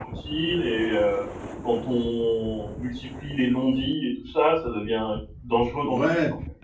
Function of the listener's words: taking over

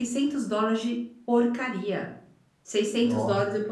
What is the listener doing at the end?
listening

